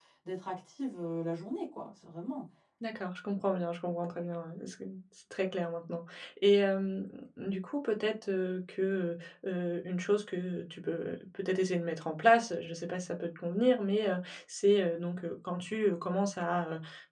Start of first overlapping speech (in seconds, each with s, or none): none